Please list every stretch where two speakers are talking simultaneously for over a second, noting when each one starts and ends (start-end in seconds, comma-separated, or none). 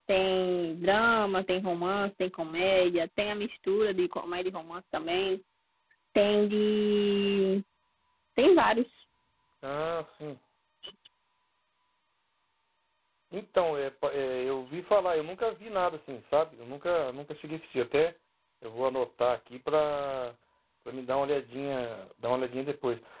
none